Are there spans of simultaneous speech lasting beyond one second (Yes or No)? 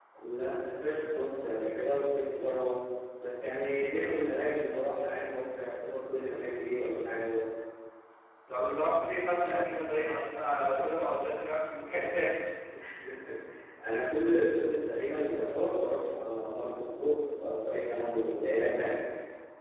No